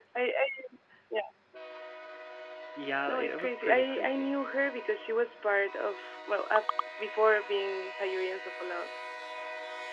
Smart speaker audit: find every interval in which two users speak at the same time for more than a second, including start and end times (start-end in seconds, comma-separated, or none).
3.1-4.4